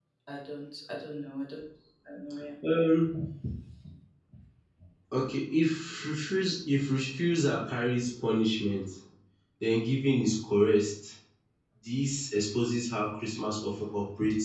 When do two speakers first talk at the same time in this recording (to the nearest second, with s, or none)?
none